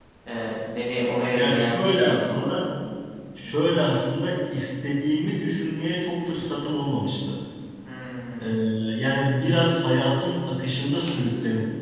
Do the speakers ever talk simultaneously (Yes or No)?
Yes